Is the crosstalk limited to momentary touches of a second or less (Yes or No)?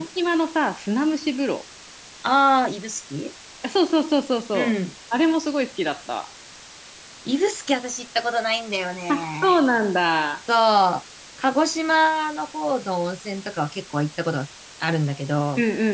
Yes